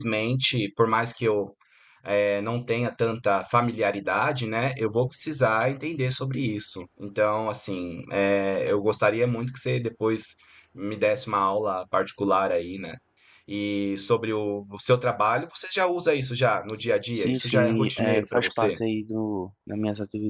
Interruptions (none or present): present